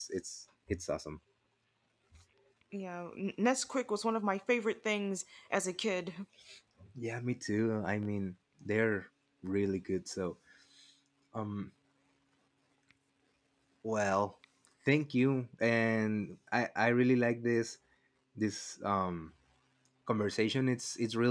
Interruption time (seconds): none

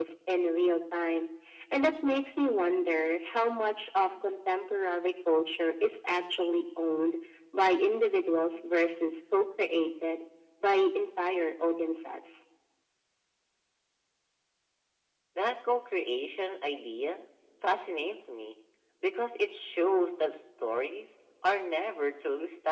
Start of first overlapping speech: none

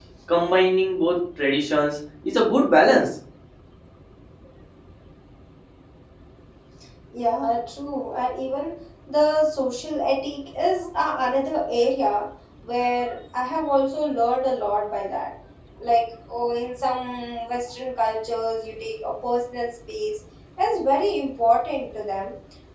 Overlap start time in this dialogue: none

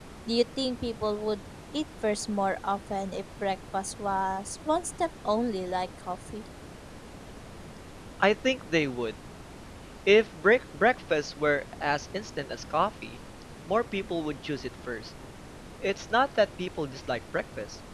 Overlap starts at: none

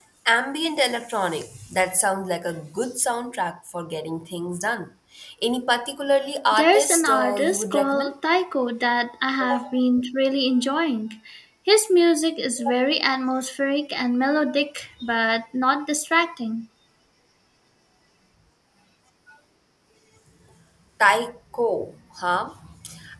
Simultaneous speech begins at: 7 s

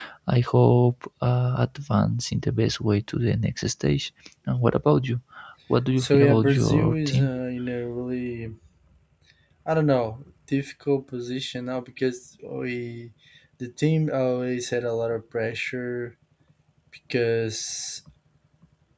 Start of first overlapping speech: 6 s

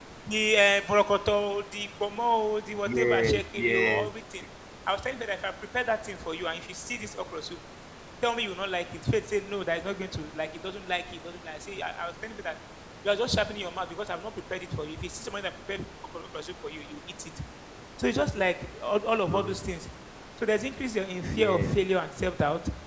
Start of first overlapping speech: 3 s

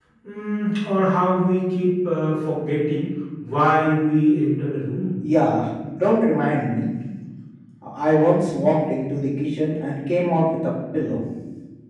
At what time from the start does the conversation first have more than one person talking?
none

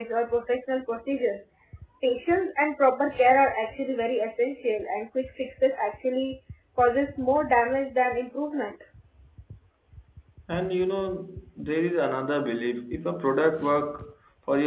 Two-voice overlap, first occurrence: none

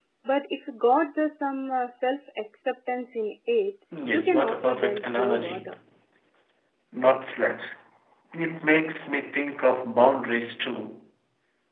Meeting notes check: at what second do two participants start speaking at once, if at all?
4 s

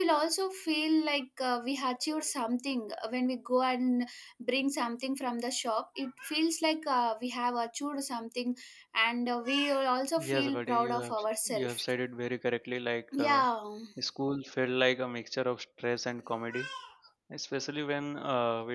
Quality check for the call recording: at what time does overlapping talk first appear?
10 s

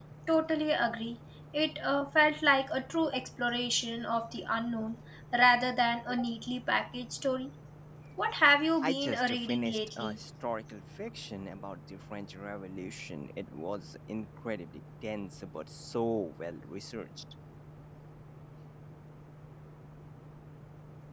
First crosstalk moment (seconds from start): 9 s

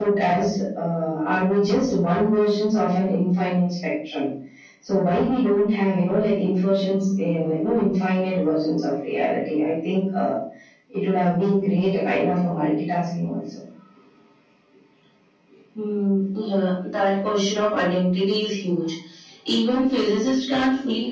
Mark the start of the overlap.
none

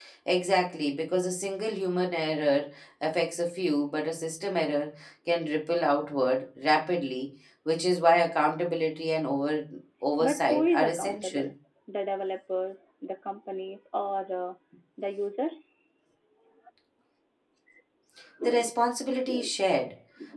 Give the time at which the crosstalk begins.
10 s

